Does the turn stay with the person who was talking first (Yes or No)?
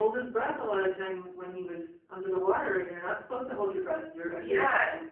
No